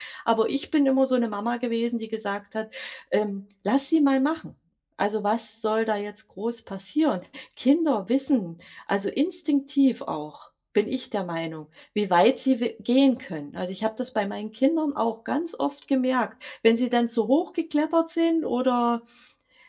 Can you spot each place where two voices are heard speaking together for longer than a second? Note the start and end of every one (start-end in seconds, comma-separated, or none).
none